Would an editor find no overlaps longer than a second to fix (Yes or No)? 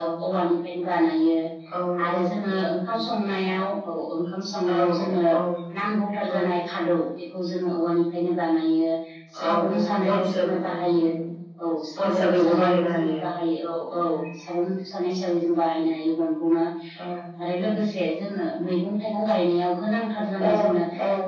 No